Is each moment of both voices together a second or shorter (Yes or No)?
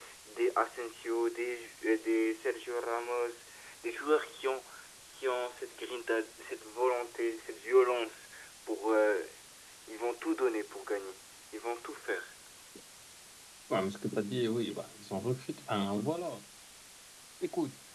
Yes